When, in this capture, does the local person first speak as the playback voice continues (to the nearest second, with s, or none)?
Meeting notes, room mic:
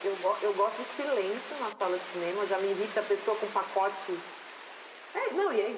none